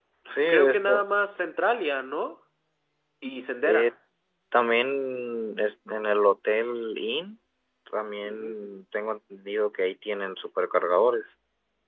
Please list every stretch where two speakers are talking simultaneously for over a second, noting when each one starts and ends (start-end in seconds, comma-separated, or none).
none